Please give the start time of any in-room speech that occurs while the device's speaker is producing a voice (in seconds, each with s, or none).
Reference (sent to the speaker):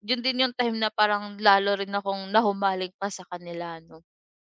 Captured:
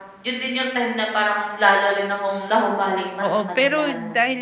3.2 s